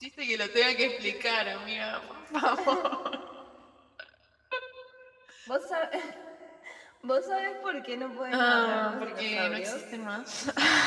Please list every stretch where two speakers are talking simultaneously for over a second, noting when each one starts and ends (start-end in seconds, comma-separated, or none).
8.3-9.8